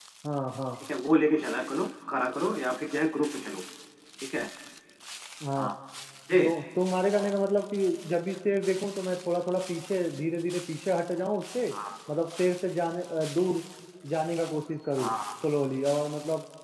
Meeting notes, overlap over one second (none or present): none